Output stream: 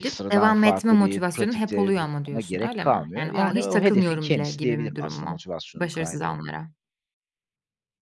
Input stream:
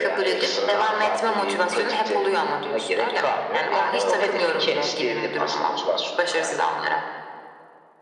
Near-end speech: none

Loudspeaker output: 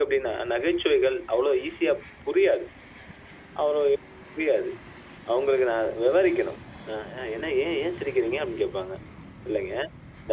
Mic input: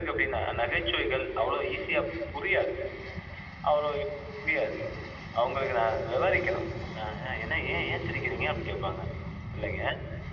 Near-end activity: none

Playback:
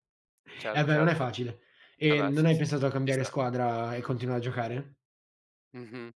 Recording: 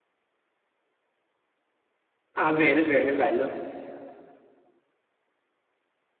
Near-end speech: present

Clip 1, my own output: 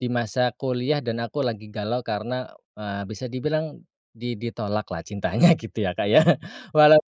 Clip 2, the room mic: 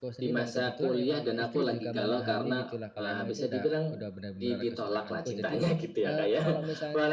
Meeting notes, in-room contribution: present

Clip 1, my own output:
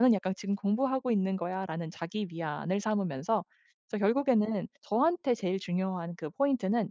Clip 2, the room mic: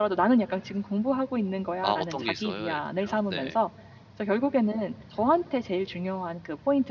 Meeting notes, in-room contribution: present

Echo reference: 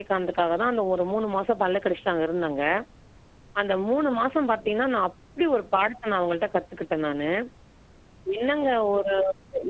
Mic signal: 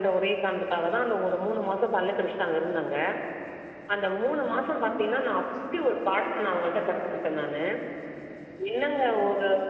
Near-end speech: none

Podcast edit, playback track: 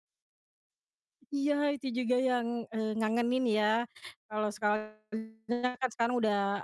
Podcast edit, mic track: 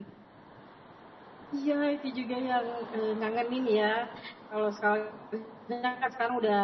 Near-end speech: none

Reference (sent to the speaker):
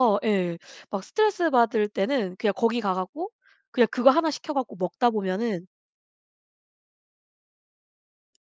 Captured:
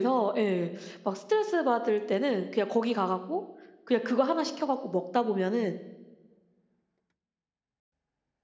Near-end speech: none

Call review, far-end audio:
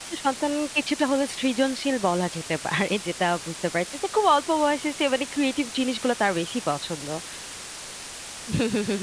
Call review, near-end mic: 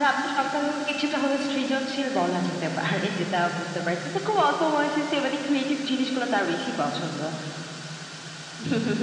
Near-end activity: none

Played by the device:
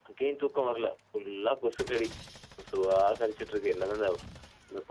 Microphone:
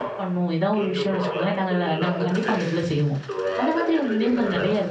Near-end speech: present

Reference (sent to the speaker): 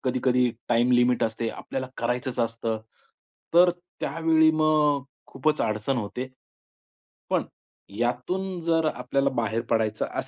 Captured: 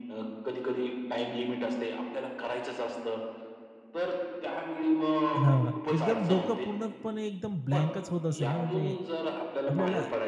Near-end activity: present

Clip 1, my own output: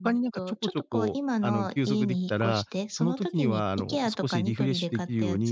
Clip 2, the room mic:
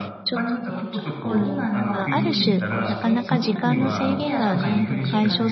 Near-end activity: present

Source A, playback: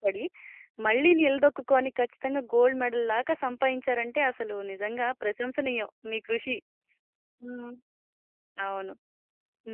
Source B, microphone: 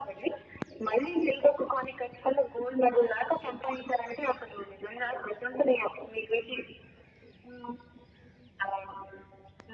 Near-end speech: none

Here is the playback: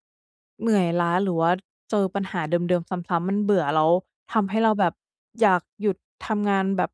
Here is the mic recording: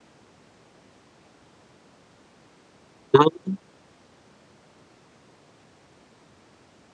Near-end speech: present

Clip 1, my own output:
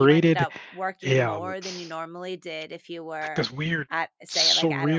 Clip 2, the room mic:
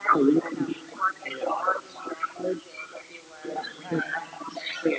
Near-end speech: present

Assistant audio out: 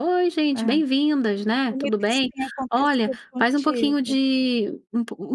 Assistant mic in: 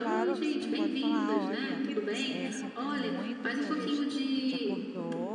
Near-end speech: present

